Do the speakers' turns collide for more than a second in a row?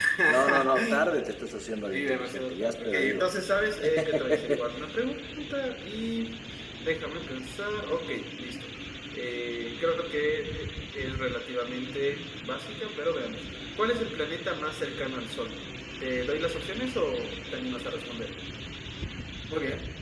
Yes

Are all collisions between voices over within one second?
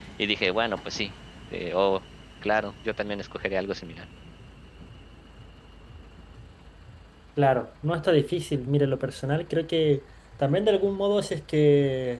Yes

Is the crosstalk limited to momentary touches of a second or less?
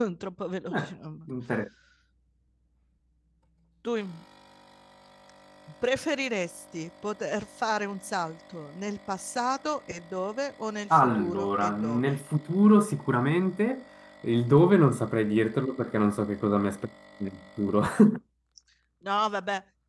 No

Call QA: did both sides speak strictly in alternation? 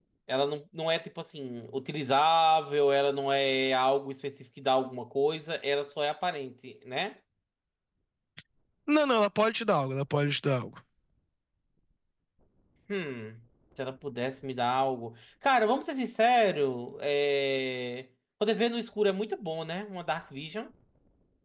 Yes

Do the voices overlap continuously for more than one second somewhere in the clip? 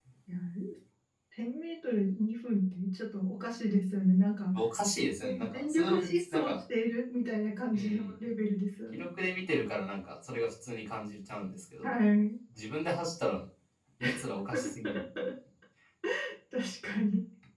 Yes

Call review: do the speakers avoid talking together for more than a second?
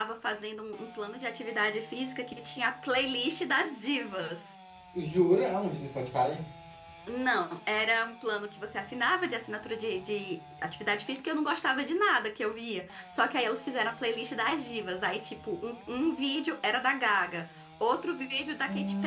Yes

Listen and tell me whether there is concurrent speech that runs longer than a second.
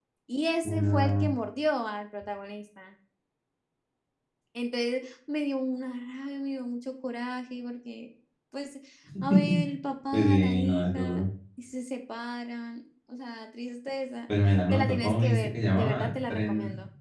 Yes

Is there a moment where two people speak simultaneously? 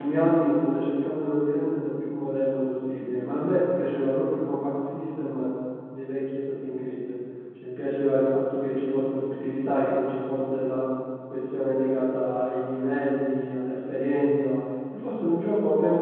No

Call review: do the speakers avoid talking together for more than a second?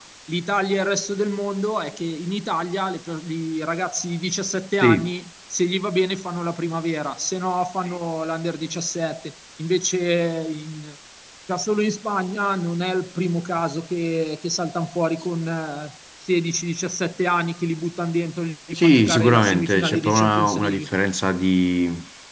No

